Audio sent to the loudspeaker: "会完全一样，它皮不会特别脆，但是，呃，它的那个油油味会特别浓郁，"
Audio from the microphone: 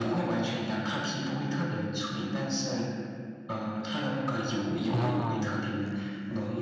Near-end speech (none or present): present